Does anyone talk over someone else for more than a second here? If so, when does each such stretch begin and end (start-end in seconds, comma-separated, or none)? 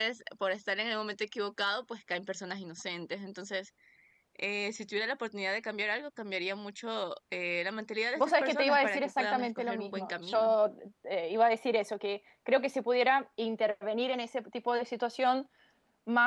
8.2-10.6